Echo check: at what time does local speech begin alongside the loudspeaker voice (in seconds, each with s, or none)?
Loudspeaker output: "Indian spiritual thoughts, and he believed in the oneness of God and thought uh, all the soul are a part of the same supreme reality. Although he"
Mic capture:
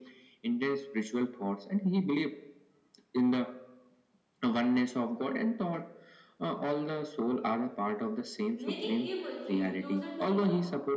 8.5 s